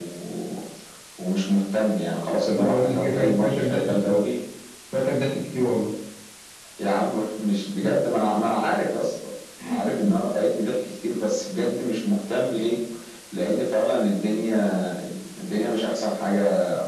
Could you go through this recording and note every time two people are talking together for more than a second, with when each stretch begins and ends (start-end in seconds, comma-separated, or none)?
2.5-4.3